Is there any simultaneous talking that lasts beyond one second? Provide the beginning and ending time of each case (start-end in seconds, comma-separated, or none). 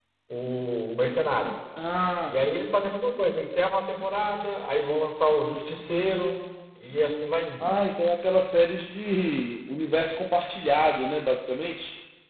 none